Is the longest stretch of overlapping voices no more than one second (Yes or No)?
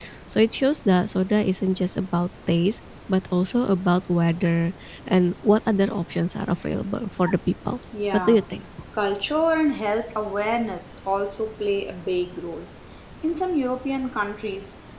Yes